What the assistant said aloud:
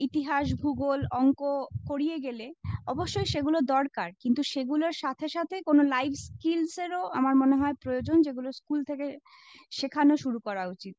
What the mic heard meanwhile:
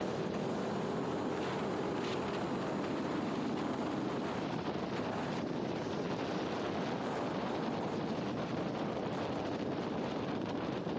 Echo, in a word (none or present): none